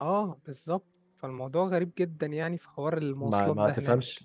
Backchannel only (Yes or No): No